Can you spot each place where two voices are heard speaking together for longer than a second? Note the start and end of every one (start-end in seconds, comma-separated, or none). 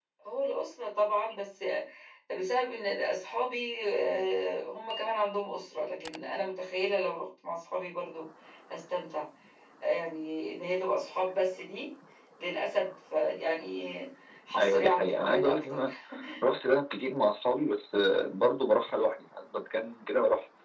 14.6-15.8